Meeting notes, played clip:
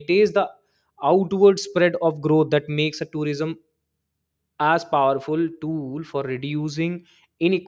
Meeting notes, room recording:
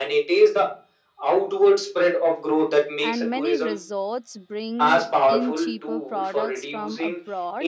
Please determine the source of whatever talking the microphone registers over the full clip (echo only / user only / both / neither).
both